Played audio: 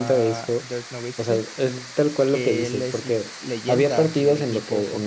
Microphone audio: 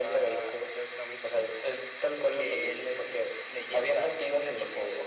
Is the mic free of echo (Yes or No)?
No